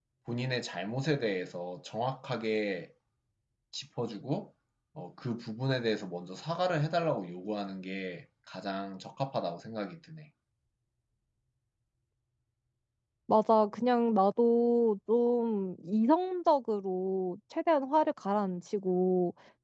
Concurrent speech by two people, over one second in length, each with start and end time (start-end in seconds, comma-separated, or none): none